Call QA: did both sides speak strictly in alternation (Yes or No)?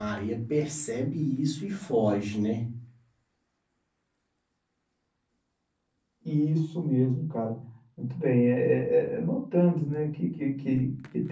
Yes